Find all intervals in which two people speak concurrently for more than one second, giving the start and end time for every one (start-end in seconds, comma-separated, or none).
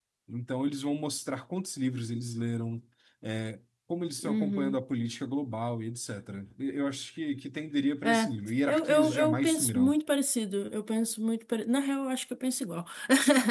8.7-9.9